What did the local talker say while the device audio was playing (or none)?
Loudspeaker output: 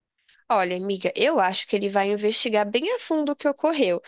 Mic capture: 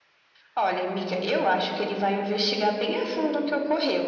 none